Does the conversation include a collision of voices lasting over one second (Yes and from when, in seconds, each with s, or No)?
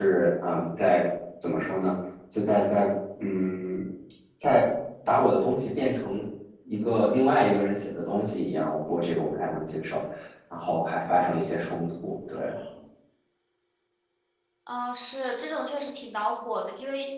No